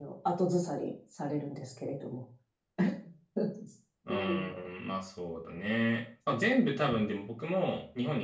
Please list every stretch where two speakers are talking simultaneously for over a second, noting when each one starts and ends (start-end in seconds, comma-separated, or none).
none